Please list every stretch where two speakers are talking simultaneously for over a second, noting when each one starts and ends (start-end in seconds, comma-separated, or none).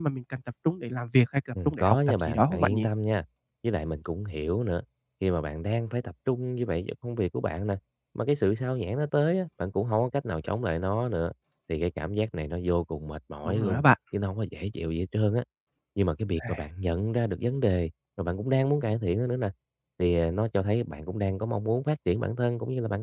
1.6-2.9